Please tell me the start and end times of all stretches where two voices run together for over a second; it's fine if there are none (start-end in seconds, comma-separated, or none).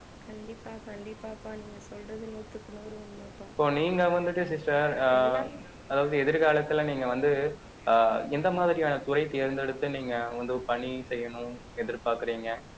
none